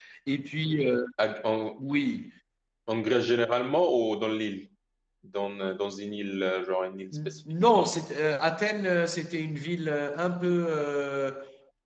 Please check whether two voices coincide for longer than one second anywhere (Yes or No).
No